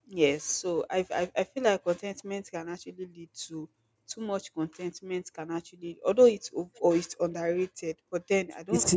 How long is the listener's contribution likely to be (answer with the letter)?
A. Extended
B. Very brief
A